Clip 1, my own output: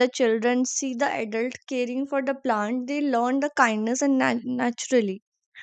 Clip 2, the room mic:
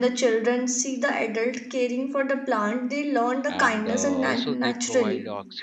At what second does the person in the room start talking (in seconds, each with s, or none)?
3.5 s